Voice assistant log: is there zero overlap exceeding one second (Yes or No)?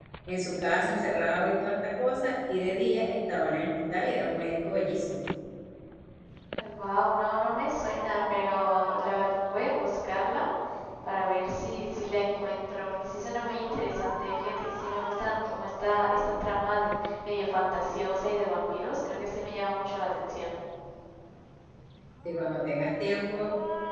Yes